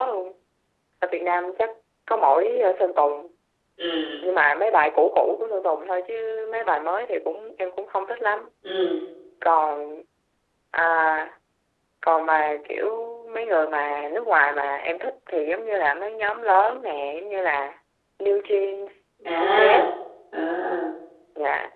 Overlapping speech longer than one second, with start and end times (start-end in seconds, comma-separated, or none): none